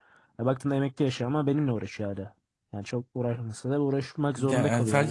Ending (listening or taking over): taking over